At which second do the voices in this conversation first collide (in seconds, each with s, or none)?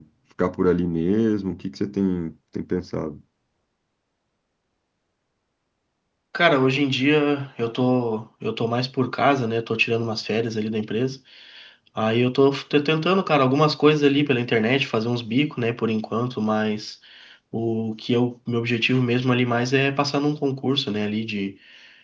none